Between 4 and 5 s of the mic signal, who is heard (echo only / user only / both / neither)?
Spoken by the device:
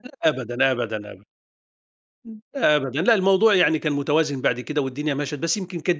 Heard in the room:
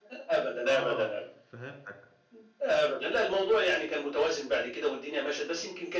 echo only